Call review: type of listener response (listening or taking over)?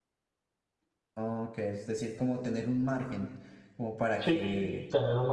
taking over